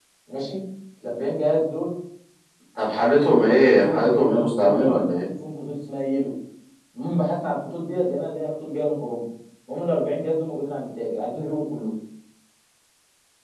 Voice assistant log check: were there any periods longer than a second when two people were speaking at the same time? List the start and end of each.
3.6-5.2

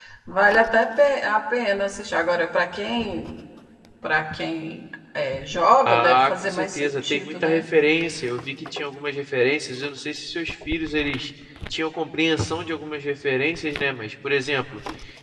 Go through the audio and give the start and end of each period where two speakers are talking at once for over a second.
5.9-7.7

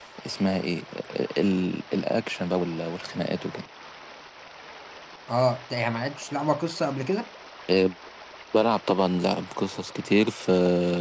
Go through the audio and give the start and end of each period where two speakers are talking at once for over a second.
none

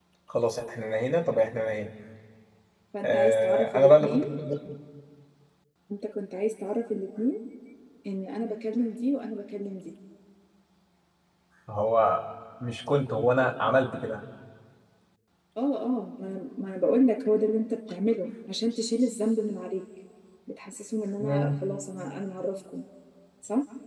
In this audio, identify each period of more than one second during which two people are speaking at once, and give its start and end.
3.0-4.2

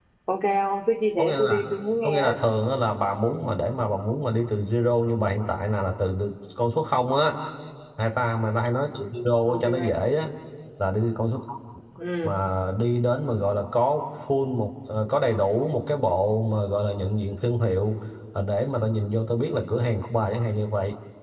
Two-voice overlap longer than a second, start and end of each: none

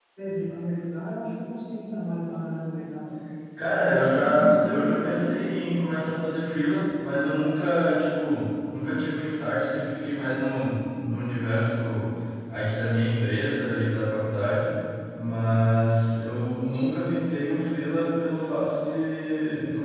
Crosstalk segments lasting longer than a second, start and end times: 3.8-5.3

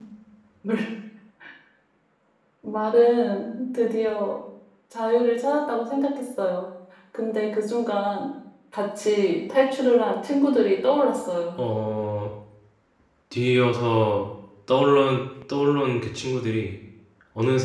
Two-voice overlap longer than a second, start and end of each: none

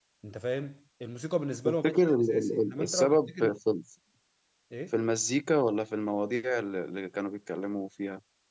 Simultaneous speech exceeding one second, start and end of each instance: 1.7-3.5

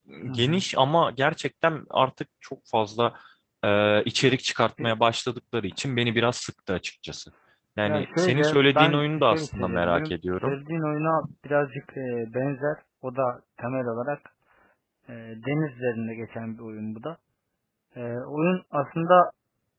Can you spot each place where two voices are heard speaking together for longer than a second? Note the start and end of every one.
7.8-10.5

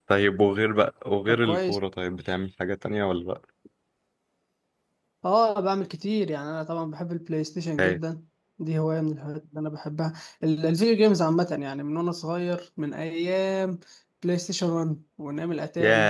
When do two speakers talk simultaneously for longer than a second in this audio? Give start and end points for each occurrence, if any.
none

